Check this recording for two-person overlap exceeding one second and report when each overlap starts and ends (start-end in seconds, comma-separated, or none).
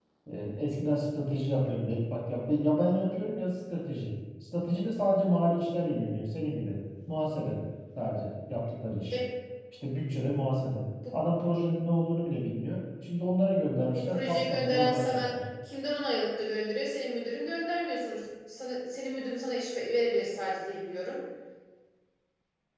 13.9-15.3